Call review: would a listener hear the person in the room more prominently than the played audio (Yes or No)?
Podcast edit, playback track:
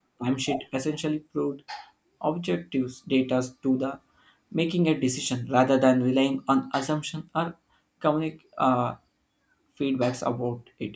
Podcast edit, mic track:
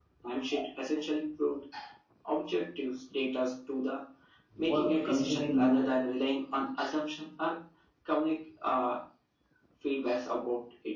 Yes